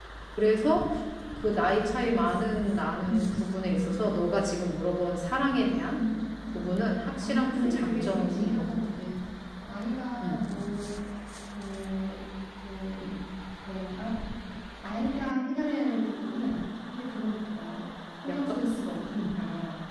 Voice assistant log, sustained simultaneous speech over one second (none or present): present